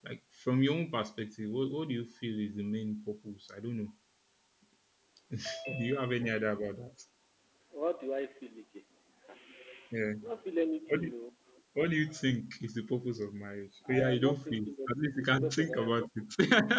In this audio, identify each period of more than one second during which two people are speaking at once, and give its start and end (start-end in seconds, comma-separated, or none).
14.0-16.1